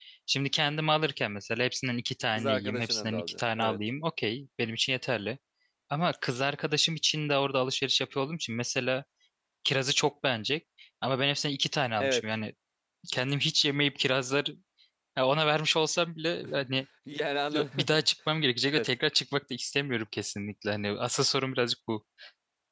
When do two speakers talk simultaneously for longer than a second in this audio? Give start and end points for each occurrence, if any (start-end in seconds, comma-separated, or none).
2.4-3.8